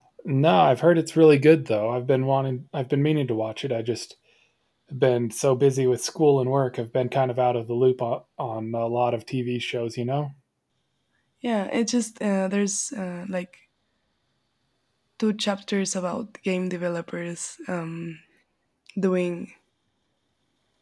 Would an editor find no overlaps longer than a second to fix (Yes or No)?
Yes